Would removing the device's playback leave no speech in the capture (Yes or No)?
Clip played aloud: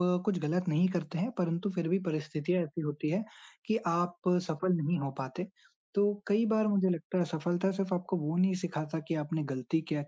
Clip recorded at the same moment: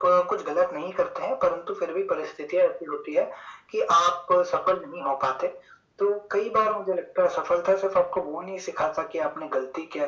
Yes